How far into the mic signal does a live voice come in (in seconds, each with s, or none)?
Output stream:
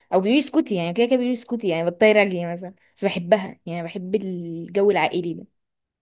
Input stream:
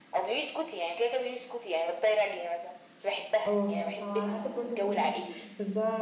3.5 s